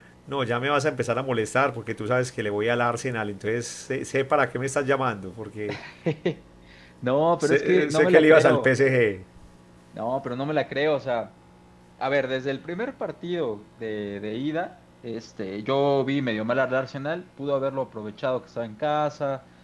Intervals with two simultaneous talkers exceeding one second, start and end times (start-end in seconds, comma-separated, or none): 7.4-8.7